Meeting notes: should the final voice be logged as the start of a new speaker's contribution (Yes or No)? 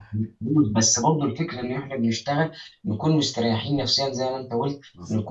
No